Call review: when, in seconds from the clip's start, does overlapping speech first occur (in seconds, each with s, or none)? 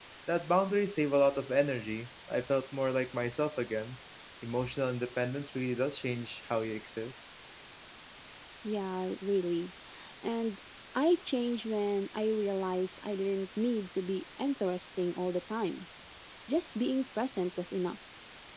none